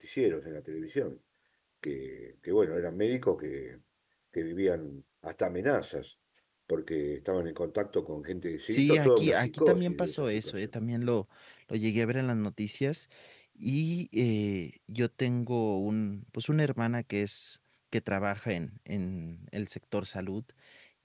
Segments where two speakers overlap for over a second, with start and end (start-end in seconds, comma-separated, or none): 8.7-10.5